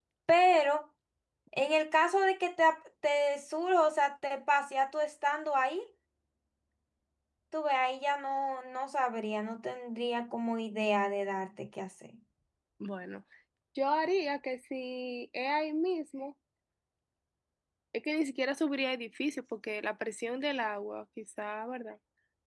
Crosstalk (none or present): none